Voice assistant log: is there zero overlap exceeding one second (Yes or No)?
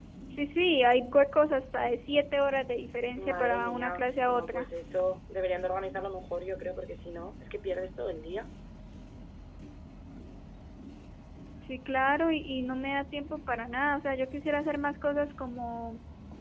No